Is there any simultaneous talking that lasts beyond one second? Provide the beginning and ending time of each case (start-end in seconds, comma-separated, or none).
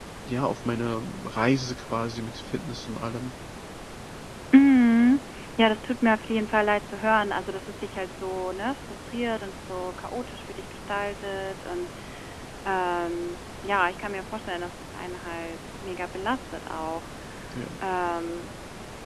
none